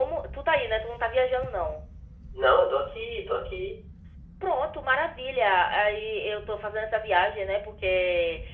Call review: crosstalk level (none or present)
none